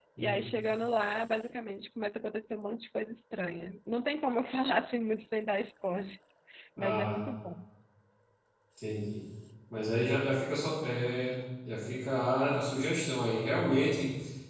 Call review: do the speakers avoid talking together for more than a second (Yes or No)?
Yes